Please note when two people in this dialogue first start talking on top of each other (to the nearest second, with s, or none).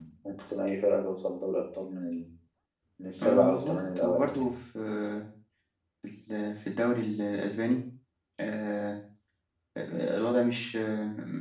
3 s